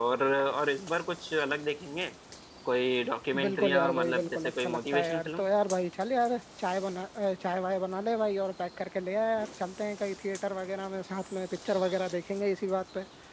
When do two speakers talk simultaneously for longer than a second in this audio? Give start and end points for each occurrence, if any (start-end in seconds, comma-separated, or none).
3.4-5.4